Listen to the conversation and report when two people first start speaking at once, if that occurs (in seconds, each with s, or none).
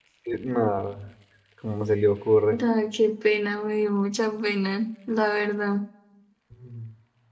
none